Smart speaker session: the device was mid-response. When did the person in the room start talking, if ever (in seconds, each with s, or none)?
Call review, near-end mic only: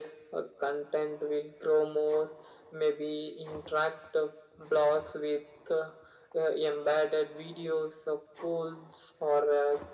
none